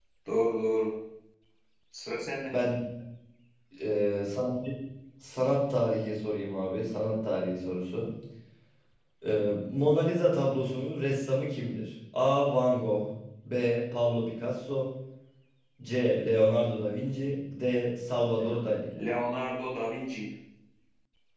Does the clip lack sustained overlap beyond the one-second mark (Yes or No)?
Yes